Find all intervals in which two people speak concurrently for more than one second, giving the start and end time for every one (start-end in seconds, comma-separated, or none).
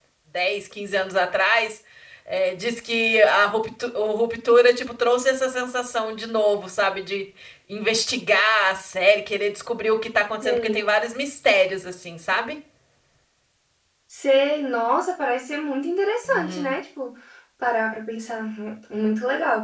none